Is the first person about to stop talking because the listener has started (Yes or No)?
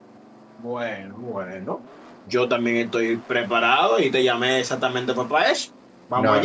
Yes